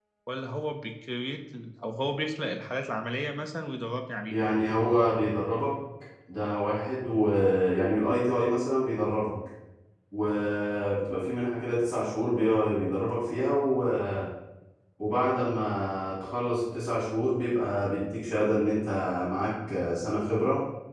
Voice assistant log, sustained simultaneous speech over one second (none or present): none